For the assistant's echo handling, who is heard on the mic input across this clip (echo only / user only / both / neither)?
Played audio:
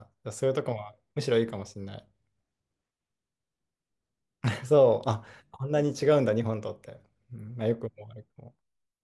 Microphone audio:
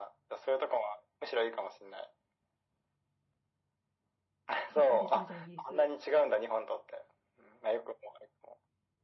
both